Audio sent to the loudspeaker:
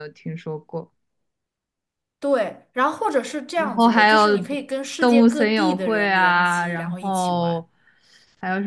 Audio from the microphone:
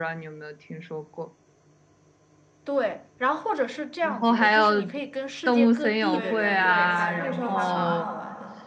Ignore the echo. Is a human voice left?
Yes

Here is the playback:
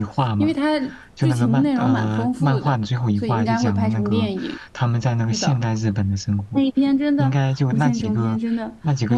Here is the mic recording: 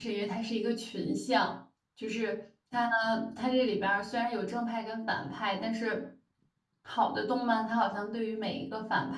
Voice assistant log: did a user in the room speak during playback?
Yes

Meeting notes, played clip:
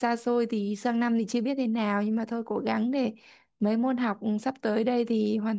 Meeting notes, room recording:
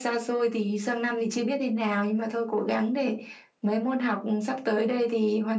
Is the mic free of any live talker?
Yes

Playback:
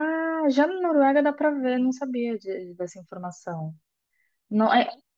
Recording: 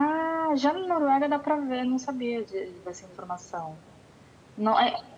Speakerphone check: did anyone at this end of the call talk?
No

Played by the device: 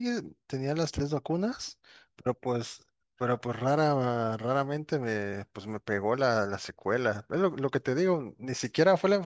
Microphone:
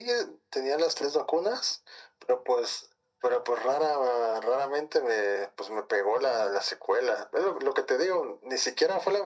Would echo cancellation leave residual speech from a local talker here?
No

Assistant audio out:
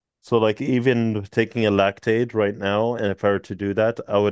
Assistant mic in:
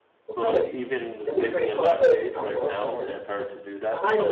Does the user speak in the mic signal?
Yes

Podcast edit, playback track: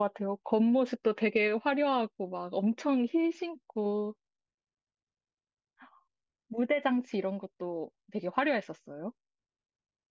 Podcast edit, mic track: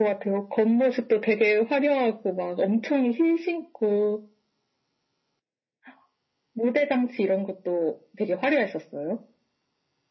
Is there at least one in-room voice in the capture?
No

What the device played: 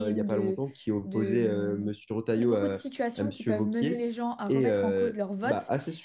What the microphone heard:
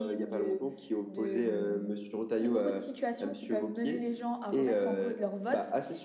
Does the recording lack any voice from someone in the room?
Yes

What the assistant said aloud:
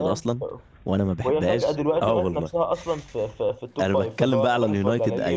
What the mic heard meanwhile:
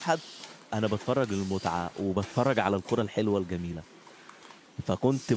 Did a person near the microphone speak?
Yes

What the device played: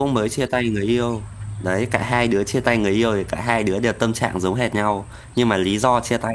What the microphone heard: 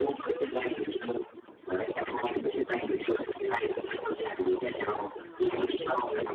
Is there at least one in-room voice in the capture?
Yes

